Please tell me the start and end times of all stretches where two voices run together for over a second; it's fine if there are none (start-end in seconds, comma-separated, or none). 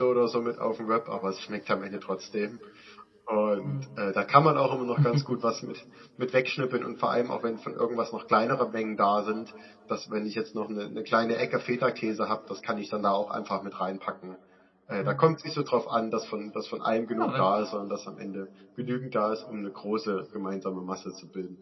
none